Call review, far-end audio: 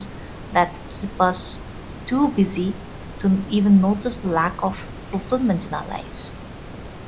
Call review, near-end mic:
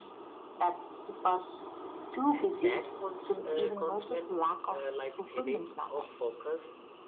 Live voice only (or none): and that cons- uh, constant uh, like thinning of focus